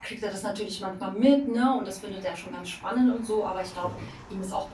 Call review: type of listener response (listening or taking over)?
listening